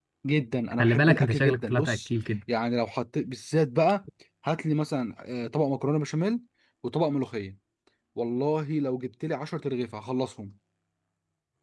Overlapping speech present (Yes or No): Yes